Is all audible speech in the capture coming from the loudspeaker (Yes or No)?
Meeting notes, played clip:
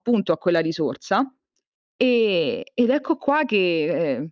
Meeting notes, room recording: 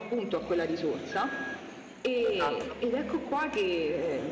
No